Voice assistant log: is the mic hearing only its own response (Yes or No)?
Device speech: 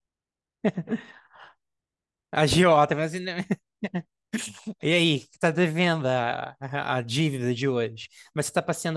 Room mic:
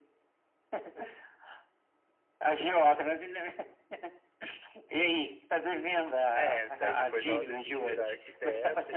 No